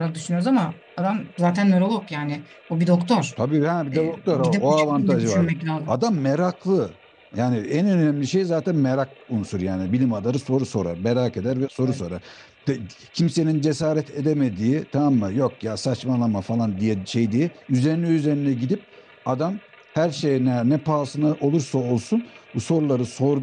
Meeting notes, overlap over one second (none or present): present